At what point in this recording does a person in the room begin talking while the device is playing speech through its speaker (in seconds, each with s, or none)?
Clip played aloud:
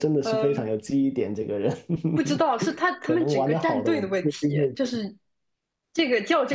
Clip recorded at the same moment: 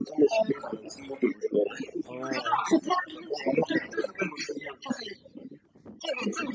2.1 s